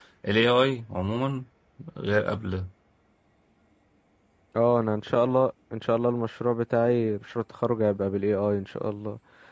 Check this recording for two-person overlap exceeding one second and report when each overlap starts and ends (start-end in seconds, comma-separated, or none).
none